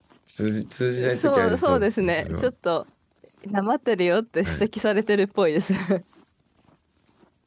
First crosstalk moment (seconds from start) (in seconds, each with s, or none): 1.1 s